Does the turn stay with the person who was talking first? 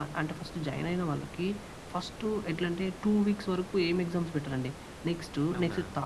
Yes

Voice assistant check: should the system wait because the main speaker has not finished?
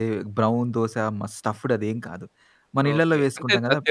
No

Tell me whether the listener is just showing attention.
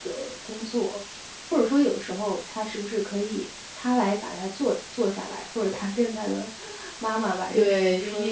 No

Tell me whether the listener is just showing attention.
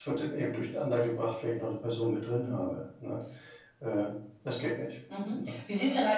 No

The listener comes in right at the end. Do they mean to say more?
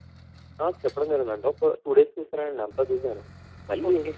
No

